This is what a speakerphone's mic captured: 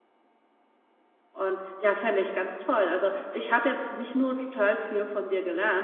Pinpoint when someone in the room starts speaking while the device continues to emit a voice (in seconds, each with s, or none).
1.3 s